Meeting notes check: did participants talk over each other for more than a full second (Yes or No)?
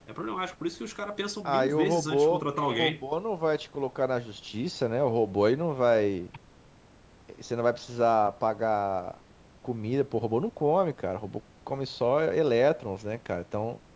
Yes